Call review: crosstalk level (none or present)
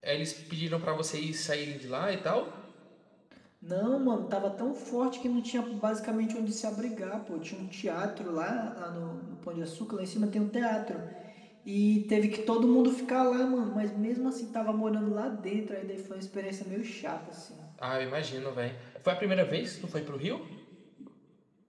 none